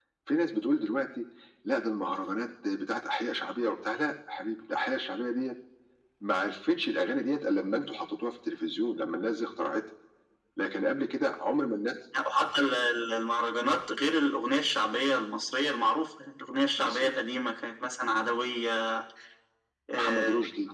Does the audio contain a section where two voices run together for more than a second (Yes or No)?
No